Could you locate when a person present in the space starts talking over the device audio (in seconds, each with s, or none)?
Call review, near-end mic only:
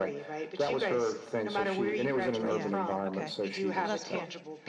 2.4 s